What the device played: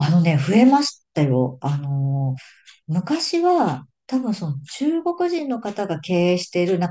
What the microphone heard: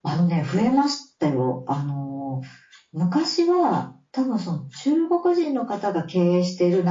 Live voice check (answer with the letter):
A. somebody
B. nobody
B